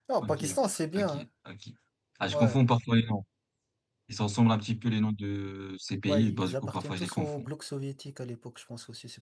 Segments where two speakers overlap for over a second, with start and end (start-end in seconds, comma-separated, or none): 6.1-7.5